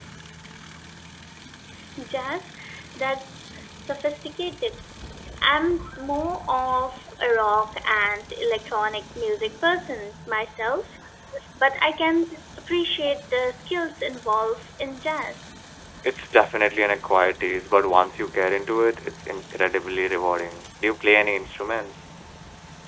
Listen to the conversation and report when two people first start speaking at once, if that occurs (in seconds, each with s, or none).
none